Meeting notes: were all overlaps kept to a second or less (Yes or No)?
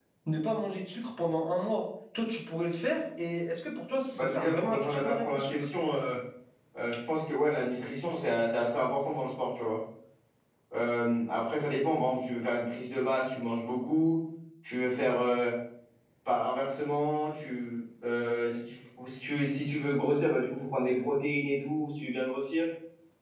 No